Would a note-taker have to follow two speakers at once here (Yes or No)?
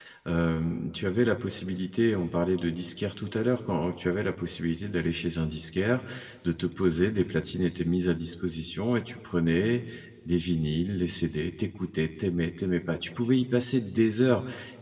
No